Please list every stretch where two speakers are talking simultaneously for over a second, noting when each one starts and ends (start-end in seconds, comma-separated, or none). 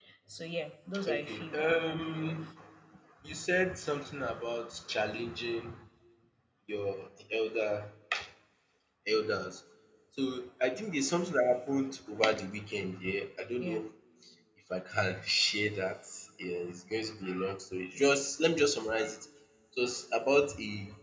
1.1-2.4